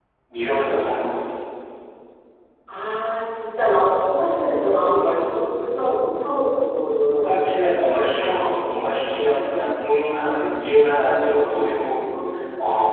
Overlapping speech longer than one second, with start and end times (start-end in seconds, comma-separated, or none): none